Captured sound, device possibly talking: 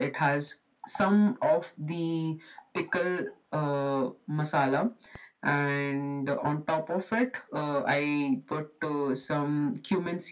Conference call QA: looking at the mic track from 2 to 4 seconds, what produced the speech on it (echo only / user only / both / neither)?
echo only